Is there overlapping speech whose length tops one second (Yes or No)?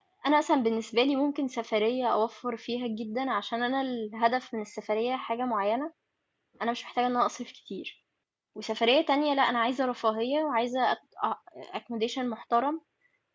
No